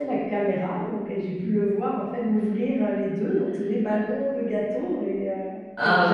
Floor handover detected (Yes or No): Yes